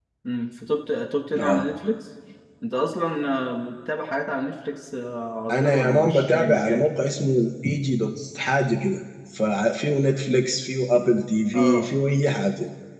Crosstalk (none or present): present